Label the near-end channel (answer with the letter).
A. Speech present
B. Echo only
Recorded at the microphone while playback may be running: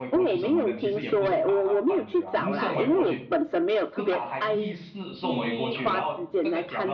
A